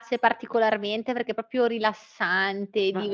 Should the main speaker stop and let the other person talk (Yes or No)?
Yes